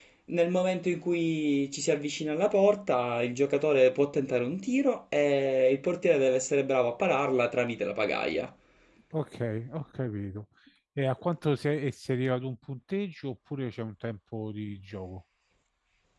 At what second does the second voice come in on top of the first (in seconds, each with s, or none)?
none